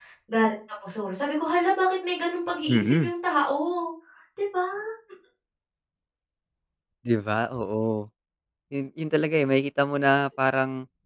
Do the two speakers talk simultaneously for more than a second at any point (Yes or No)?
No